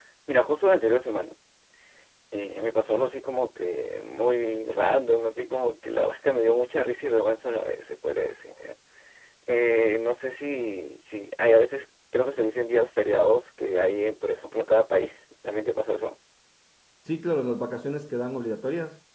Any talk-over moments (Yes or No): No